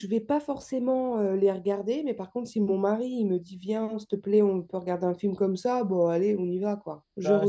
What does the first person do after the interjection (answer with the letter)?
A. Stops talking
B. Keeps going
A